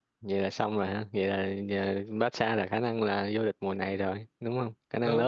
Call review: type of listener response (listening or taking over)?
taking over